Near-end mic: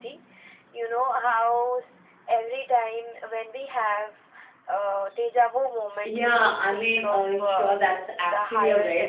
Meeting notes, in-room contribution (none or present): present